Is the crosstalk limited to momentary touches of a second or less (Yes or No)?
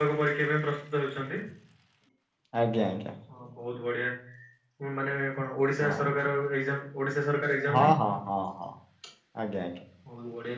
Yes